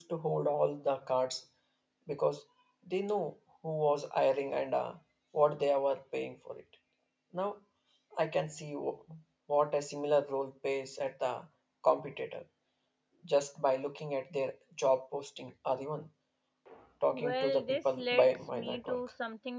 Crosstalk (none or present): present